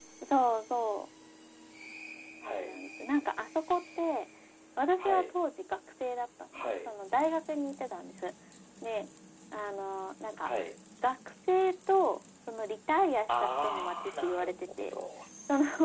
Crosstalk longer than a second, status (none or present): present